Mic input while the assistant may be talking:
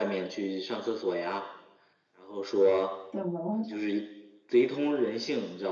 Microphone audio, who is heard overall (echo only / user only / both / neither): both